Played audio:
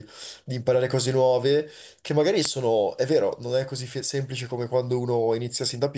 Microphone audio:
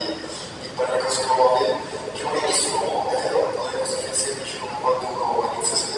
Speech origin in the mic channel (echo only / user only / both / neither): echo only